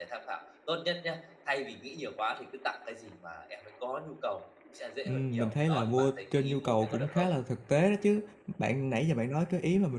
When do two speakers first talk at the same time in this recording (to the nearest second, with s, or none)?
5 s